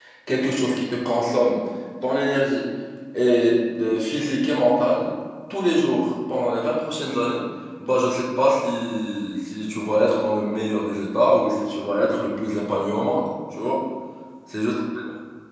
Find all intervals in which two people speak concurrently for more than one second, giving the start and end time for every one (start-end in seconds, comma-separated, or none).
none